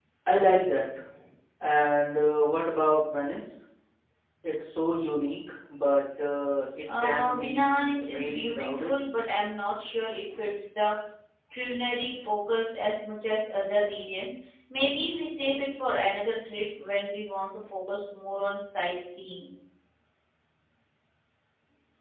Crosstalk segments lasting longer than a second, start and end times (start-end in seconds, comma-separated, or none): 7.0-8.9